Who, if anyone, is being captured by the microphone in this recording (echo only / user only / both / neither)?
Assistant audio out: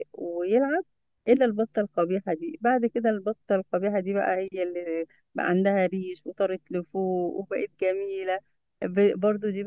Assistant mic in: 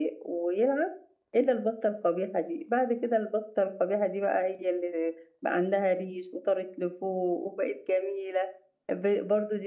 echo only